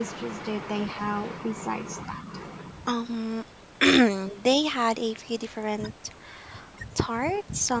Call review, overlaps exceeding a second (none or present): none